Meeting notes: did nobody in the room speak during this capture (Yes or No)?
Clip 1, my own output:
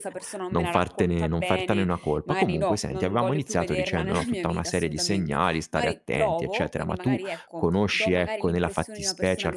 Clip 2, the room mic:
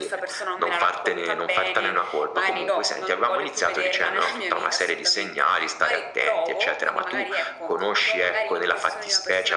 Yes